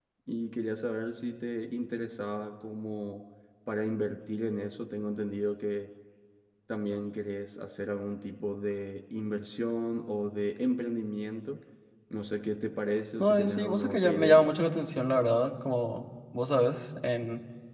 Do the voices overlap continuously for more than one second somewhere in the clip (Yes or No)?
Yes